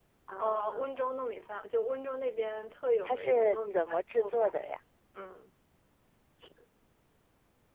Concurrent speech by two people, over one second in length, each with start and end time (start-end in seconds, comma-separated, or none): 3.0-4.5